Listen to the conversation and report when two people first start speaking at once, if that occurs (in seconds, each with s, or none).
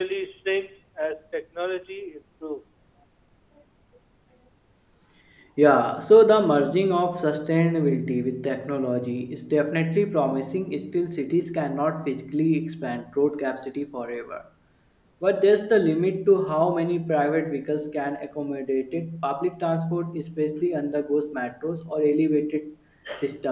none